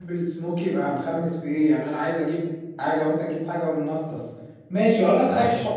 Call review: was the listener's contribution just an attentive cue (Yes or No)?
Yes